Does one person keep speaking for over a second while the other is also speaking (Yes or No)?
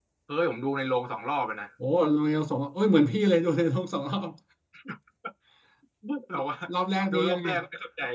No